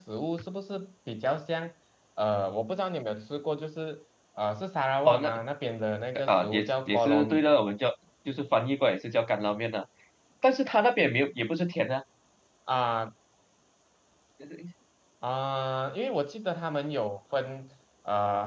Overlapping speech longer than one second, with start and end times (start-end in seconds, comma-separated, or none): 6.2-7.4